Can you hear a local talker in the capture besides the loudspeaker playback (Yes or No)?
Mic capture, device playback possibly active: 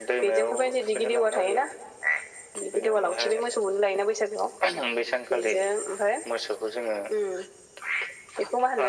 No